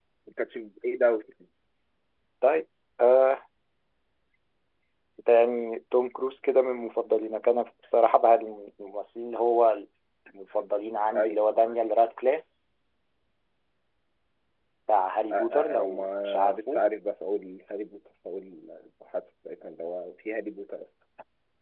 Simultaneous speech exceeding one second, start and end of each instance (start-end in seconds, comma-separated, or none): 15.3-16.8